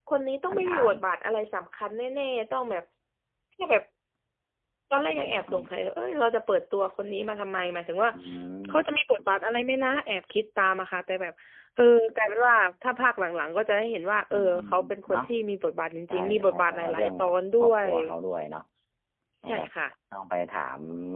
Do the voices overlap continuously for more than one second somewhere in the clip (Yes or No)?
Yes